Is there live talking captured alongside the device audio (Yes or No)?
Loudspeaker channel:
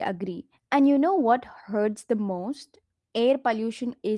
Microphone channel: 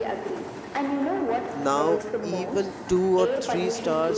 Yes